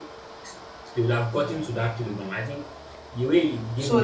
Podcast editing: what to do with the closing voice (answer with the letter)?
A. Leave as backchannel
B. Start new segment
B